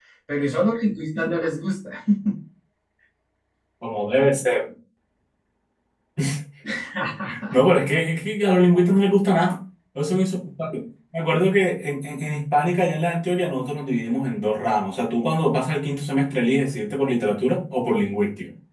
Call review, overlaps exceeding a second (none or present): none